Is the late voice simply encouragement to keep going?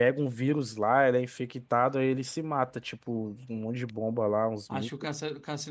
No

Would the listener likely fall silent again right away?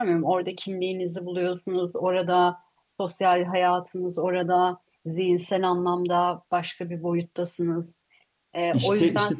No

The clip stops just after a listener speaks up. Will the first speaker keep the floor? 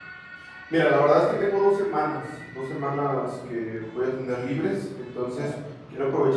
Yes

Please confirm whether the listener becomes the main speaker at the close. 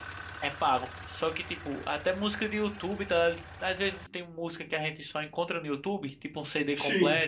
No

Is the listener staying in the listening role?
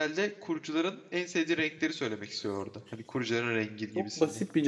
No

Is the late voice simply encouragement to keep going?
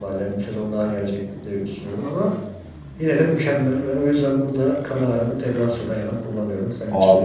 No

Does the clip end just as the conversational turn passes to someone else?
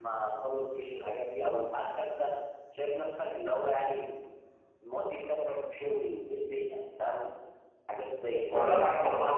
Yes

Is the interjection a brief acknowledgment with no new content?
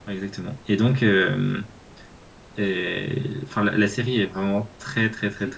Yes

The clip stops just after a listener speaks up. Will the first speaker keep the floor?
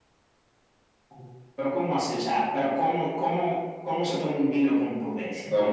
No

